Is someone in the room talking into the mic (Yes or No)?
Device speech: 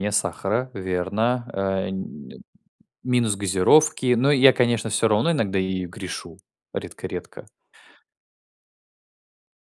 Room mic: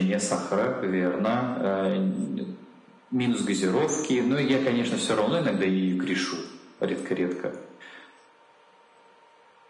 No